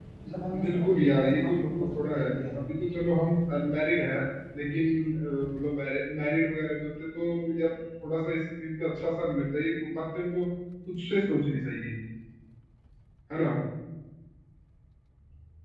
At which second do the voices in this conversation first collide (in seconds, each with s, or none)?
0.6 s